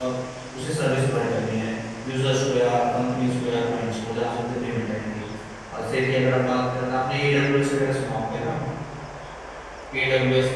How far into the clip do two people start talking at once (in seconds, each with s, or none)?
none